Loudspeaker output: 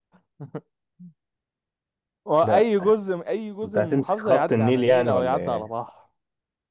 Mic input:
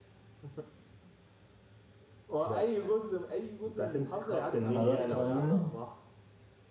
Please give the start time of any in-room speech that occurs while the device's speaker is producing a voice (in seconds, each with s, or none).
4.6 s